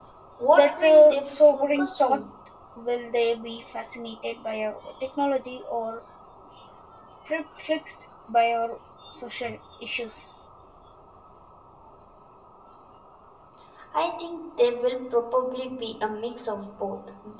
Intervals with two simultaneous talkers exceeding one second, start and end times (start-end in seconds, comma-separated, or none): 0.5-2.2